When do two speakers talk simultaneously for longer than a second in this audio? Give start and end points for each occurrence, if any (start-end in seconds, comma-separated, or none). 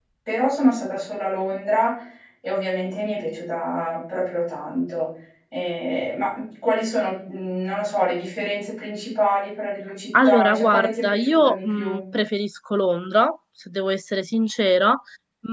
10.2-12.0